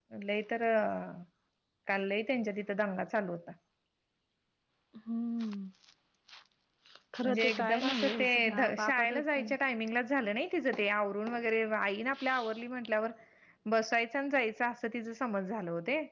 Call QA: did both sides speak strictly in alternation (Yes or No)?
No